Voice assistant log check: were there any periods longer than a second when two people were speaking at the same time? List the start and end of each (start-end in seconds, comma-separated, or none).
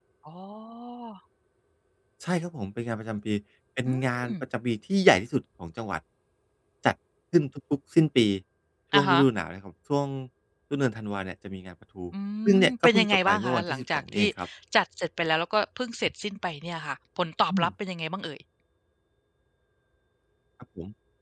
12.7-14.3